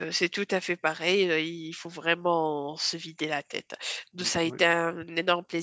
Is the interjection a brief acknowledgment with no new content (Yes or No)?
Yes